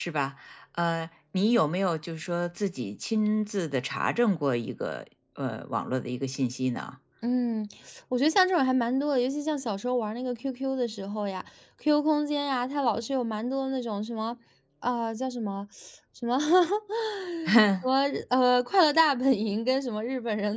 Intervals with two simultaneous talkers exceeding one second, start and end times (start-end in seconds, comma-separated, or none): none